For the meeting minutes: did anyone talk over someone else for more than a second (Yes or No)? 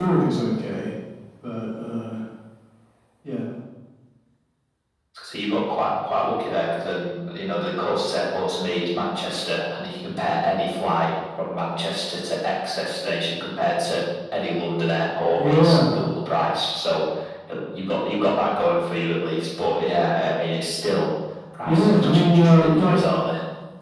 Yes